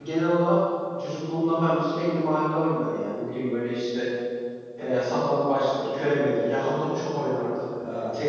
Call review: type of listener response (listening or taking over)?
listening